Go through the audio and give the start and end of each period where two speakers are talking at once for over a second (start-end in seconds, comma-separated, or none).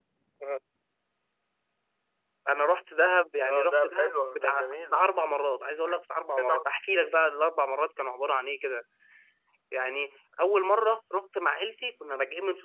3.5-5.0